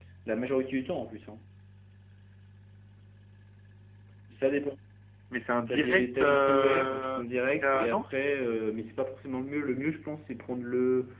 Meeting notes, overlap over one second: present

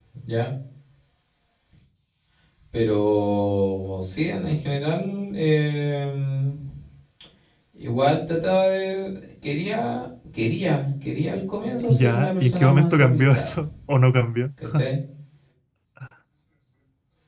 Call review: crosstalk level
present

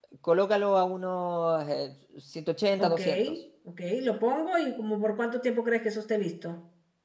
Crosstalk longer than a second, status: none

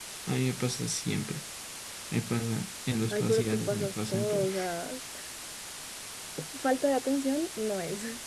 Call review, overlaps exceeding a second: present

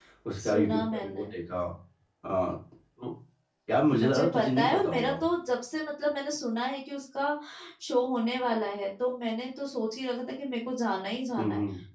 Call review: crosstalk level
present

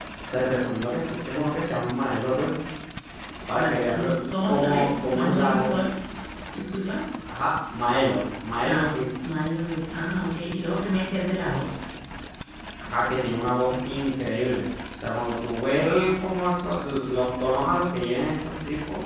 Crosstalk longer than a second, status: present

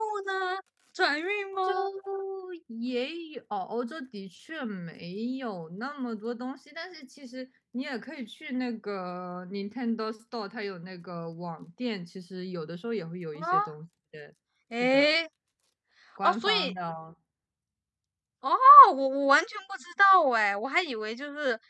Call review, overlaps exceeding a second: none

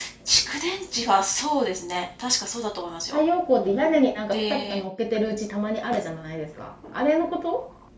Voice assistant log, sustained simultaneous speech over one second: none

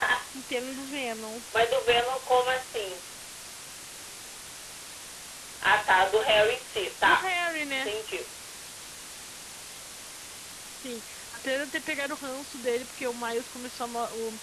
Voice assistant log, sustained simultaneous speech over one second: none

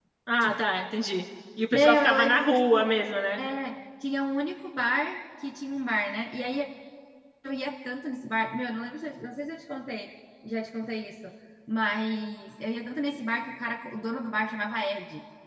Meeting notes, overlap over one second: present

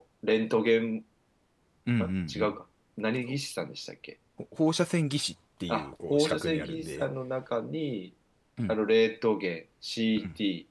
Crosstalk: present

